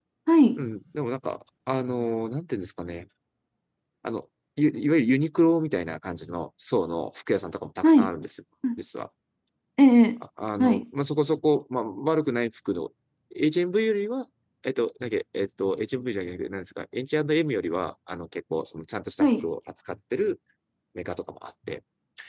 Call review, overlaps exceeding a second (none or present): none